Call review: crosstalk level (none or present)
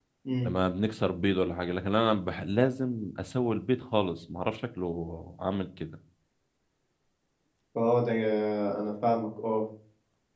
none